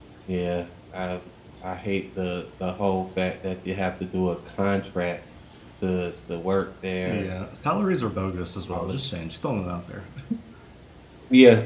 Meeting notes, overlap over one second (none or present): none